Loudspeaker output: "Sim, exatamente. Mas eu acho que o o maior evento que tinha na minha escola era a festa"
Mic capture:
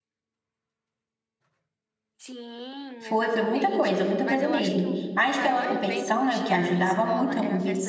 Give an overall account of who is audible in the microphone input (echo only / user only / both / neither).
both